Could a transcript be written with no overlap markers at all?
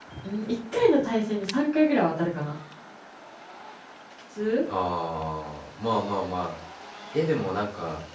Yes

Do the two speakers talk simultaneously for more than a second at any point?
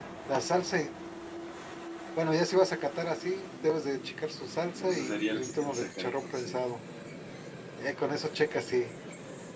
Yes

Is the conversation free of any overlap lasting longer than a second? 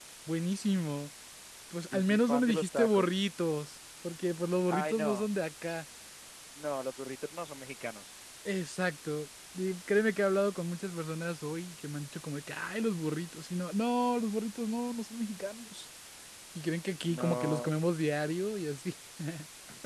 No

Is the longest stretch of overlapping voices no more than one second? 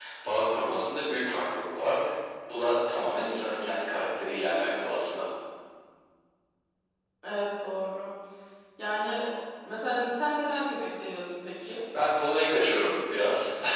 Yes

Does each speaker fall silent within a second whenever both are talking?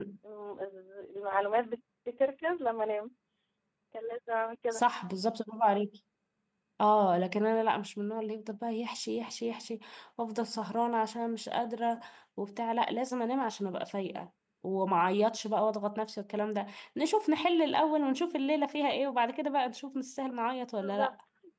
Yes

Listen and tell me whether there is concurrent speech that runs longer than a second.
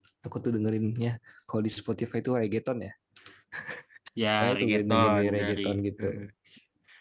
Yes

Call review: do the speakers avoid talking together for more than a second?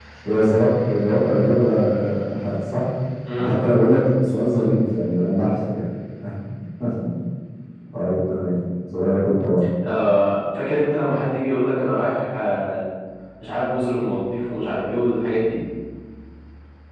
Yes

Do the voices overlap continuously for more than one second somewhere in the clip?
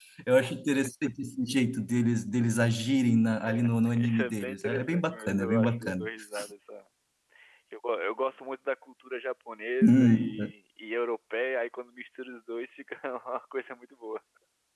Yes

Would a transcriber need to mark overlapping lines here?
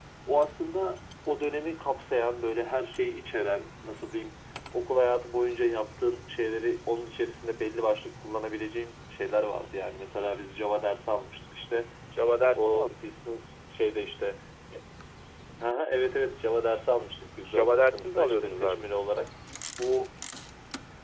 Yes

